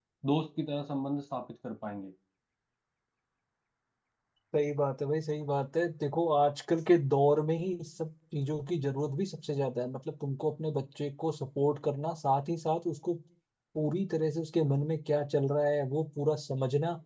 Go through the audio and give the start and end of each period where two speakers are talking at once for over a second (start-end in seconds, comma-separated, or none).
none